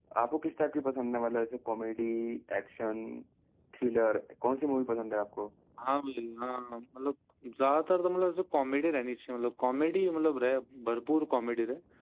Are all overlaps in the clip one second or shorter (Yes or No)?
Yes